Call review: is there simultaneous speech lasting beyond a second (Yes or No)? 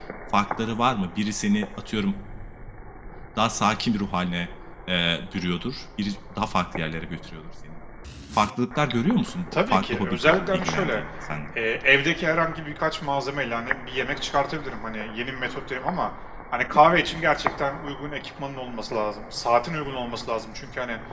Yes